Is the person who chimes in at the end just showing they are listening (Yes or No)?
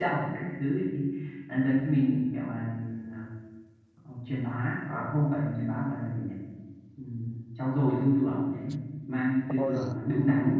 Yes